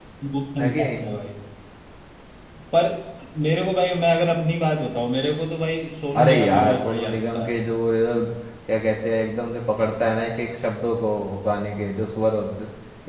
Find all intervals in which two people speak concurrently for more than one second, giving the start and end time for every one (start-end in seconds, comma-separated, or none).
6.2-7.5